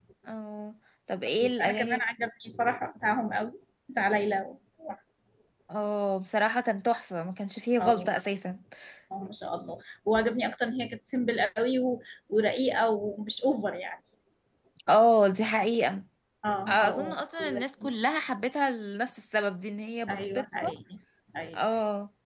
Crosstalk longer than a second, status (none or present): present